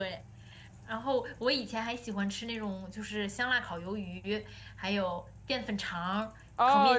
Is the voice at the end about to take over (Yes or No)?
Yes